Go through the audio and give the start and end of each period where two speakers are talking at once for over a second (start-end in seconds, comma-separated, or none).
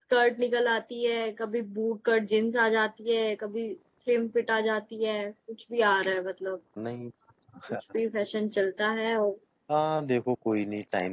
none